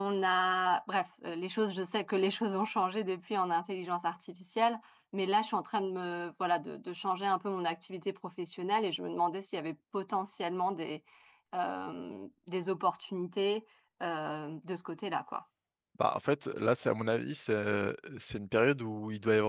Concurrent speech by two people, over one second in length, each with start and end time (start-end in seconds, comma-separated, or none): none